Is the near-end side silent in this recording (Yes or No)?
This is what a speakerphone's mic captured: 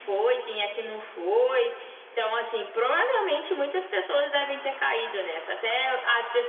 Yes